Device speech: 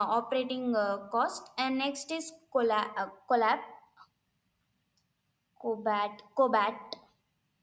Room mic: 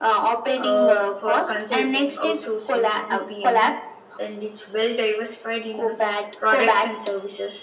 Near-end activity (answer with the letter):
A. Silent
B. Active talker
B